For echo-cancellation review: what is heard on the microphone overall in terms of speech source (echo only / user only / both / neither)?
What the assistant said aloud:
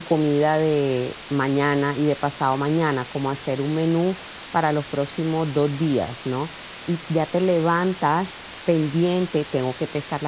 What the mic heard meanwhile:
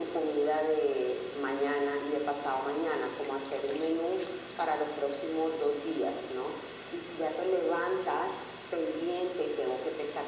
echo only